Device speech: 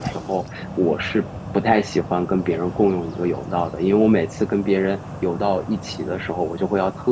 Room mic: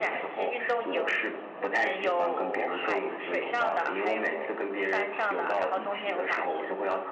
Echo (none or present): present